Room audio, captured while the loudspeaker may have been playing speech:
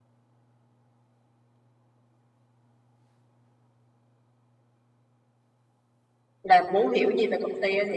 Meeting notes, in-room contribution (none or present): present